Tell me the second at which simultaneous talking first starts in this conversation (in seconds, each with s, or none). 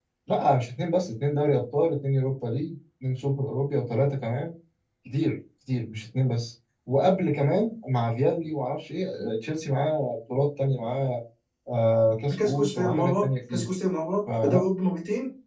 12.4 s